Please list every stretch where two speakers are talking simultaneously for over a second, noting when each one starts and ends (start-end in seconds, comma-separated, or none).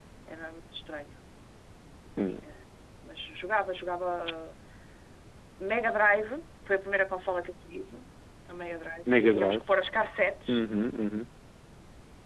none